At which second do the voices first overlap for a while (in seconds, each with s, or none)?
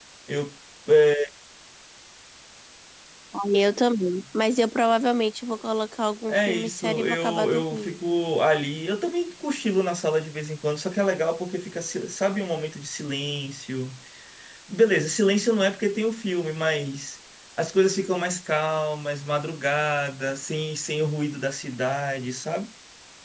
6.3 s